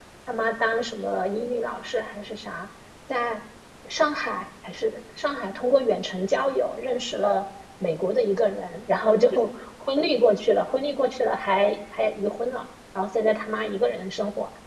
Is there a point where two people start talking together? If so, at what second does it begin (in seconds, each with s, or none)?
none